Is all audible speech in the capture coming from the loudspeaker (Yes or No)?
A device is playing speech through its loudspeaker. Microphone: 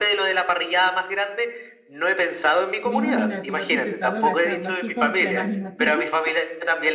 No